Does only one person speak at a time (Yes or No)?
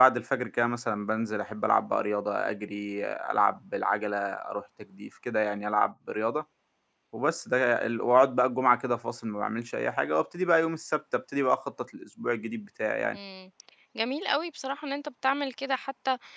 Yes